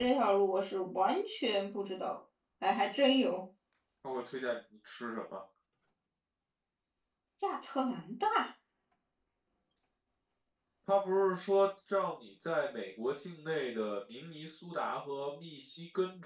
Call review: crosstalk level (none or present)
none